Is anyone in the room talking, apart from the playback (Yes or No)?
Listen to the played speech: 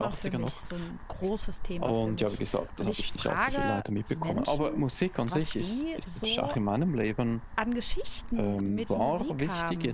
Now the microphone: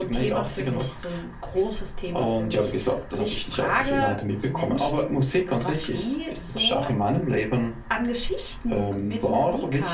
No